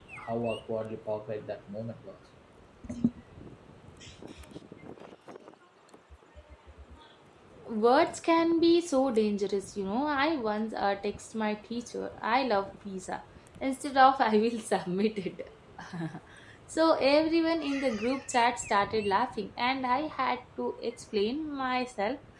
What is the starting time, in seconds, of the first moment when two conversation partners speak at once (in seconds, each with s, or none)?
none